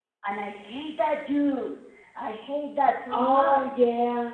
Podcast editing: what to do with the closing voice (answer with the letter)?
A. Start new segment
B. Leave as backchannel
A